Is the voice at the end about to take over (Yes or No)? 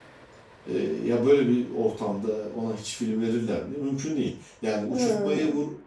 No